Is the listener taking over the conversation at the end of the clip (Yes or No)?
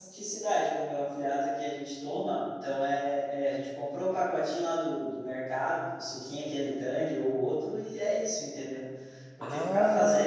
No